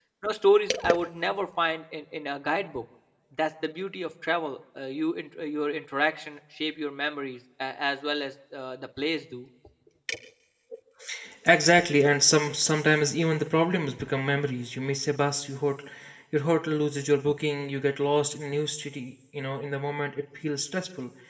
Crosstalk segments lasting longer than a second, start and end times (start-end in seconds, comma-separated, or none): none